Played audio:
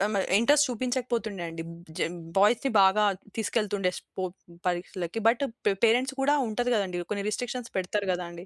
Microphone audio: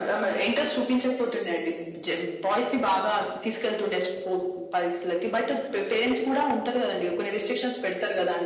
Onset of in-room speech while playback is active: none

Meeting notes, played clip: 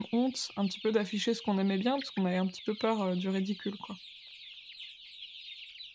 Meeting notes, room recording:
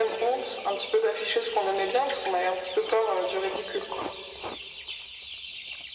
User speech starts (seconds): none

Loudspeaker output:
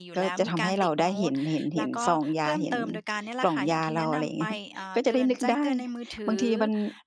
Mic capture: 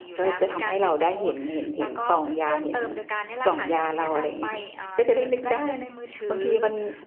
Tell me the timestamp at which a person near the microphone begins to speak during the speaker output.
none

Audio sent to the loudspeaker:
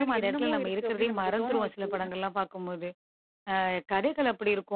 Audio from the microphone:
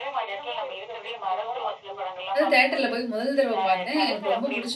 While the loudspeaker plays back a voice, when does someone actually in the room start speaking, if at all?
2.4 s

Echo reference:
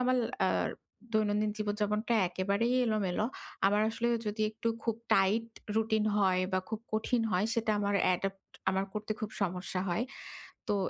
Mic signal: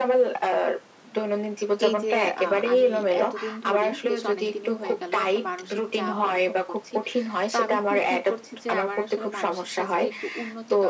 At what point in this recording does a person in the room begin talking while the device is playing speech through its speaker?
1.9 s

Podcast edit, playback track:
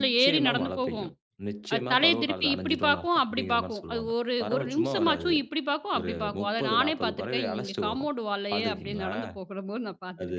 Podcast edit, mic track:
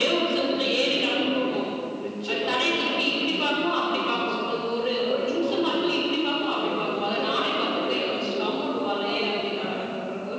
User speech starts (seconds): none

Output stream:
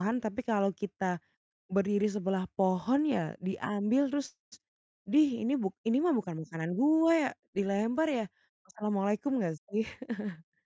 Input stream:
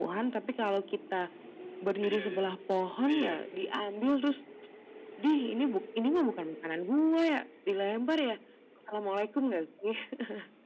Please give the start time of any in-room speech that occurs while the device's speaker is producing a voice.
2.0 s

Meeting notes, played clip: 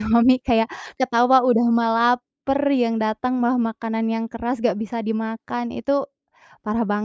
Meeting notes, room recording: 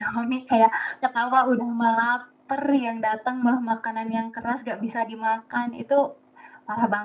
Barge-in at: none

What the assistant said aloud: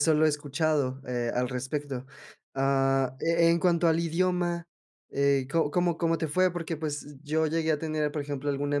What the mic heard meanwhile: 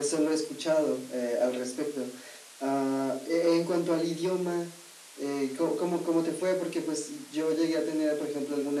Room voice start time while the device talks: none

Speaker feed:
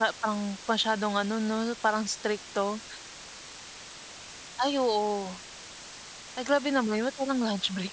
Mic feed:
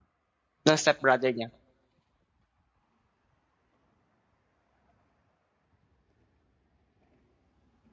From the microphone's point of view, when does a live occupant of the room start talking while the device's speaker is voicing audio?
0.7 s

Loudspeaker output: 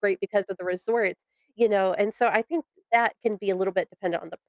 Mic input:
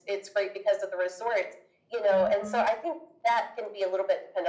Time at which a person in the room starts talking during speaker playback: 2.1 s

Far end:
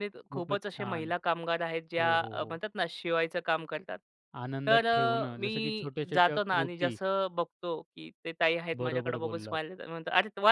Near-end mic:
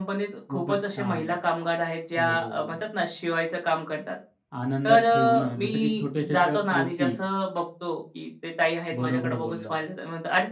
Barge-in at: none

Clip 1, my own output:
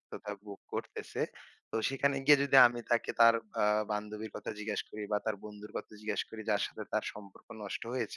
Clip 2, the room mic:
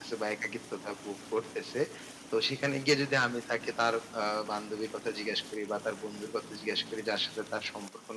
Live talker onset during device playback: none

